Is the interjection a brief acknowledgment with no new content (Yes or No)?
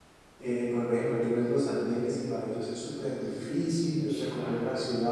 Yes